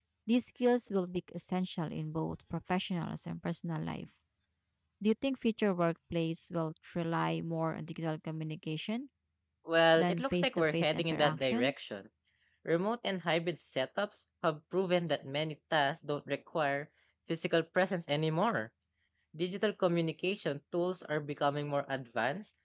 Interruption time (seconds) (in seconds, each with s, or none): 10.0 s